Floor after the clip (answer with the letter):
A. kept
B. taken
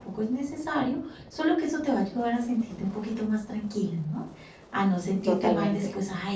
A